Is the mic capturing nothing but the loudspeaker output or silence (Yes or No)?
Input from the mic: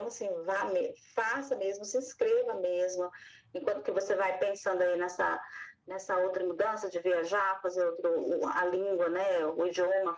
Yes